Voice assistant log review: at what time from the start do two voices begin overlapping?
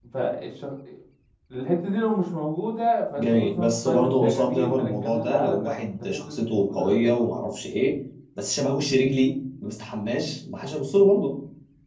3.2 s

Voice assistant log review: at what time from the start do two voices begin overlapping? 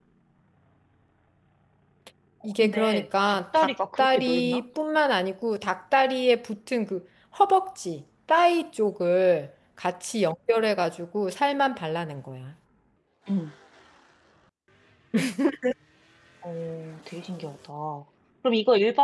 2.6 s

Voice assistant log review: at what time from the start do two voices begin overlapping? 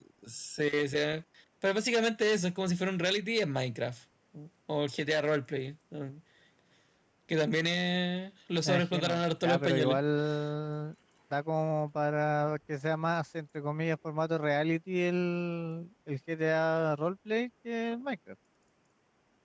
8.6 s

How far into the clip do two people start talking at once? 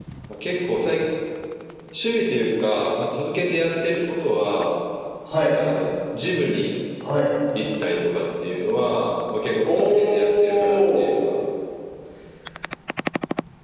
9.6 s

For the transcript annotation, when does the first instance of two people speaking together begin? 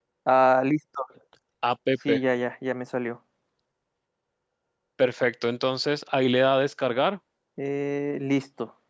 none

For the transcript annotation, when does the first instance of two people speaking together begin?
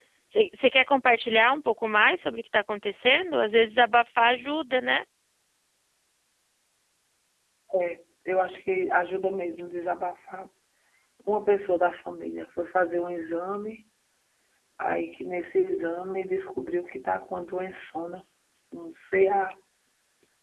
none

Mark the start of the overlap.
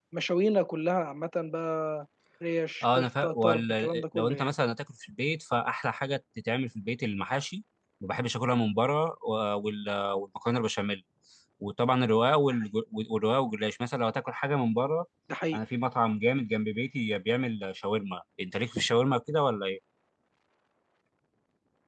2.8 s

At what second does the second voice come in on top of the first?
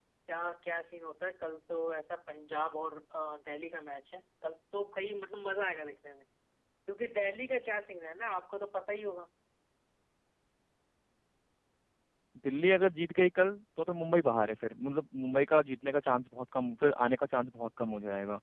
none

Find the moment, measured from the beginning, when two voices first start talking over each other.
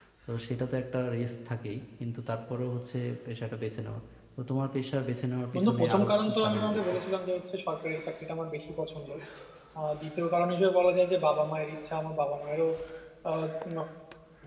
5.5 s

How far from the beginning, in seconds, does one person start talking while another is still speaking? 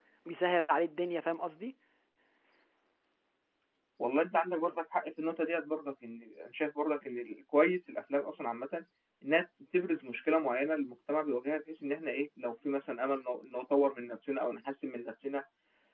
none

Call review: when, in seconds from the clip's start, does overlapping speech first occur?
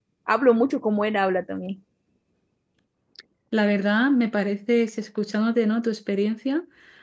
none

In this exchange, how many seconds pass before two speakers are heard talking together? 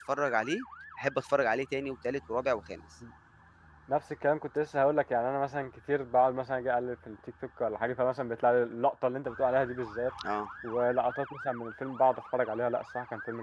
none

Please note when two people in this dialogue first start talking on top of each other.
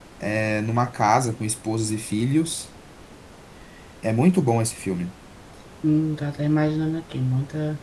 none

